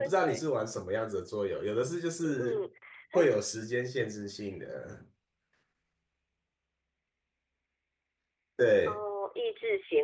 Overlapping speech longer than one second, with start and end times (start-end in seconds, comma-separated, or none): none